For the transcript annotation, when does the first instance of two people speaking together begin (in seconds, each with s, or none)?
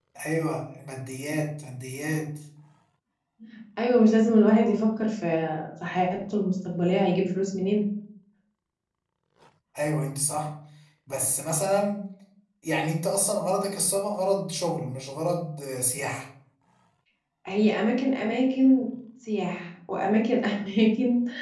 none